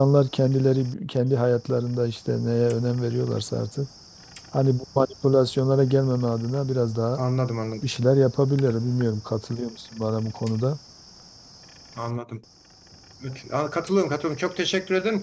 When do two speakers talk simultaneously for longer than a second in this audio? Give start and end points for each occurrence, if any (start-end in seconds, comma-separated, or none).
none